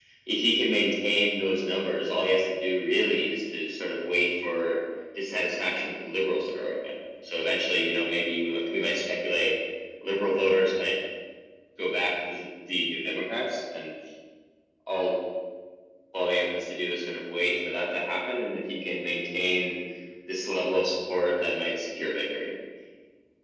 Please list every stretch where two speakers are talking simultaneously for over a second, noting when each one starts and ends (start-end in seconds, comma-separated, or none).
none